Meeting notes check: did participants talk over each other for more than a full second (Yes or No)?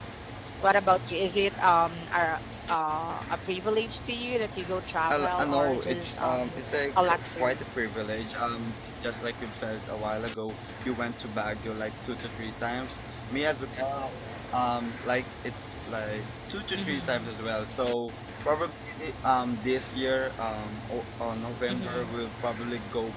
Yes